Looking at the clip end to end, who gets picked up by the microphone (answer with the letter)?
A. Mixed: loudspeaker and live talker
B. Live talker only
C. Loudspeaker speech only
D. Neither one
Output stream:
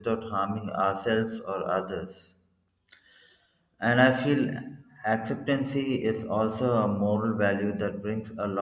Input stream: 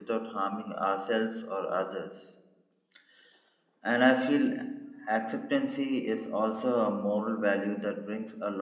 C